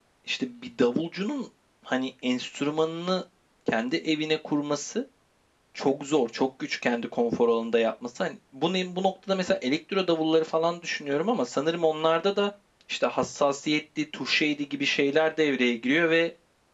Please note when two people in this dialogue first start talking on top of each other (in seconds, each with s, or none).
none